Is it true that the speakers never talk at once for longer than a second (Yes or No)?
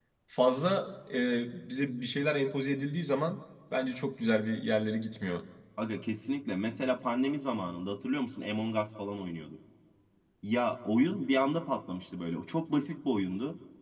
Yes